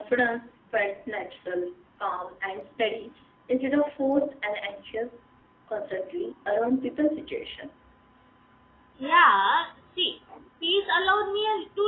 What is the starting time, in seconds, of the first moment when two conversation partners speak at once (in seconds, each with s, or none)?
none